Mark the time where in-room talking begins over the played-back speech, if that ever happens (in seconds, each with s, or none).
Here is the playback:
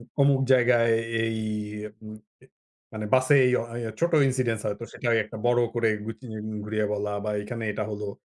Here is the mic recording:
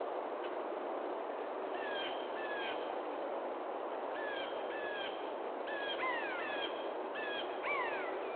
none